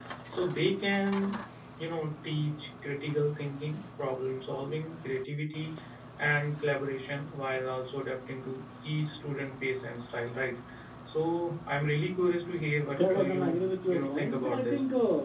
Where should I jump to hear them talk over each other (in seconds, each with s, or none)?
13.0 s